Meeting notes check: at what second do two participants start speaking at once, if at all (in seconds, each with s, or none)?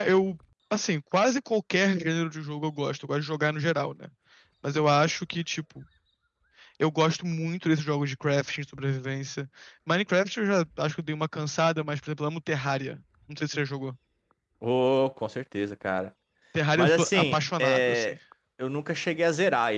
16.8 s